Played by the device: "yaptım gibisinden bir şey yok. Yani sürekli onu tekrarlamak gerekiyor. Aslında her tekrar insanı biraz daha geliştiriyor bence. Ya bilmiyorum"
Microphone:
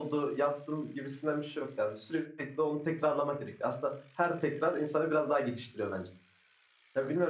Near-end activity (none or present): none